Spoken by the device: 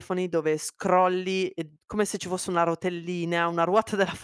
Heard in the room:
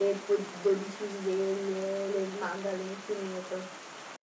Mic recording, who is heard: user only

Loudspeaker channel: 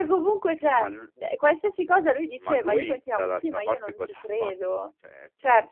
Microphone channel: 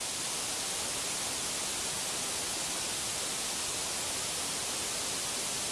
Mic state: neither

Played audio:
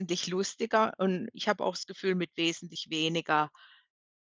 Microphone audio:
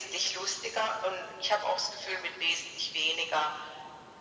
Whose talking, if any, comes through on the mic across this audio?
echo only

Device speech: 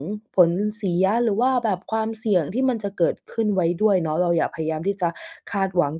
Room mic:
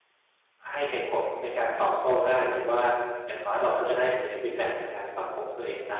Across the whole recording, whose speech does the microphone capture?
user only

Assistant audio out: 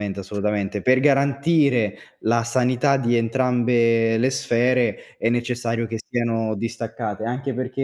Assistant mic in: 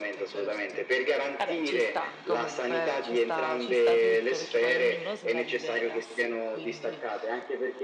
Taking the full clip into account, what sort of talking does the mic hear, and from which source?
both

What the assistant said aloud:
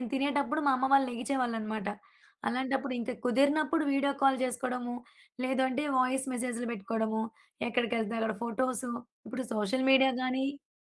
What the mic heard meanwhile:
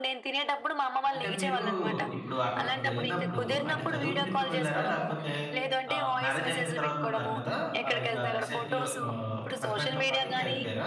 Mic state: both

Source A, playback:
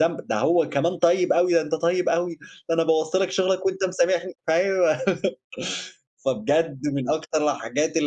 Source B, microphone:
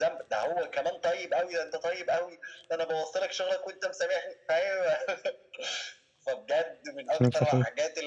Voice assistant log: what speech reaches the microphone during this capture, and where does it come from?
both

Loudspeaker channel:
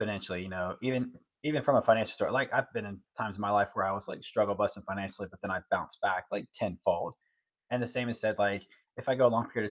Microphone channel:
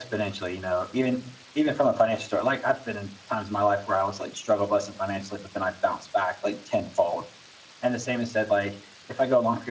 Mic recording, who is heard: echo only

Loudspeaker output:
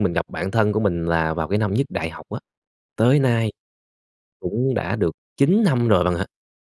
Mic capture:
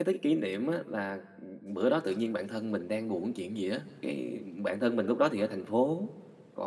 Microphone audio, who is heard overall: user only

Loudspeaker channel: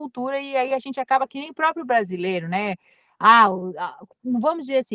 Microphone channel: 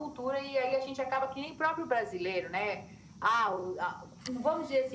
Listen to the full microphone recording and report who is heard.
echo only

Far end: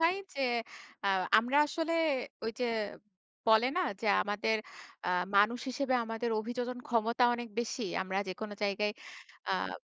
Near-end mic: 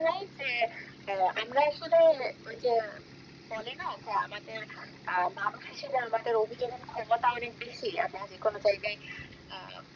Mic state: echo only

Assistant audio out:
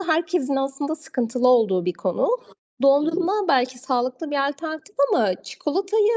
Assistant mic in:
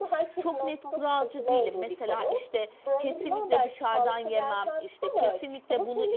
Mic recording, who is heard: both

